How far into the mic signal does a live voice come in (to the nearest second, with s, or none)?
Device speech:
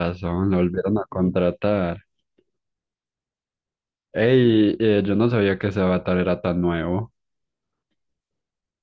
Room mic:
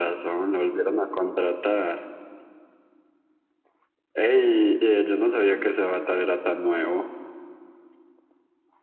none